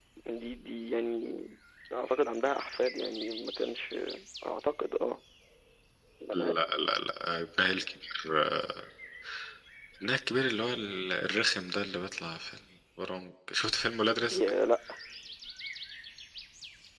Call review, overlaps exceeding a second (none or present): none